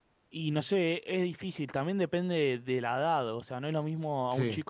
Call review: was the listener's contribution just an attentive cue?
Yes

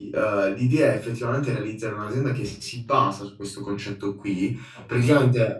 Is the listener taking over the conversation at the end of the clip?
No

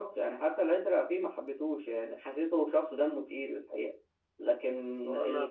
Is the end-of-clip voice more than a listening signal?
Yes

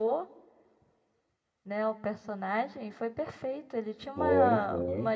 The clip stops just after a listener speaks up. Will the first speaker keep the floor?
Yes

